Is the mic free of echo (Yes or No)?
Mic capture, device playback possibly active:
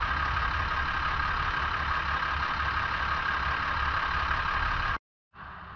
Yes